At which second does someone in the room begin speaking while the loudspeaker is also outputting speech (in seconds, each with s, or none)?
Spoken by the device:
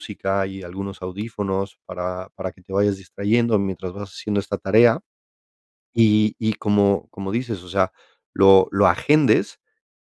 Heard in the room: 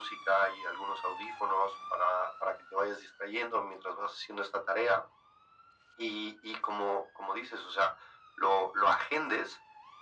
none